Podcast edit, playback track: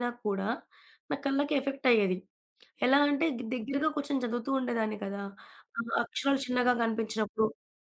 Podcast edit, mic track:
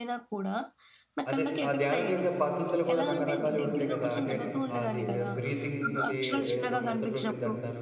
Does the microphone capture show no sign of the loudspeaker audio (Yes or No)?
No